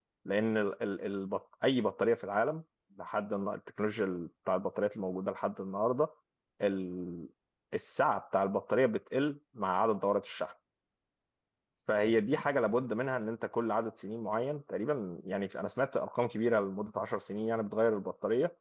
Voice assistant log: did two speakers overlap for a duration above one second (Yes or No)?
No